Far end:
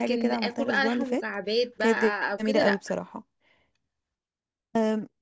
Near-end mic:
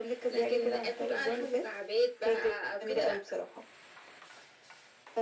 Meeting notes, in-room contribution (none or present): none